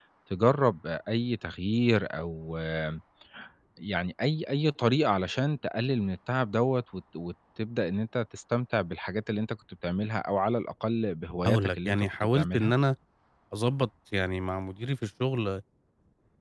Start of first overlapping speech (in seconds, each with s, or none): 11.4 s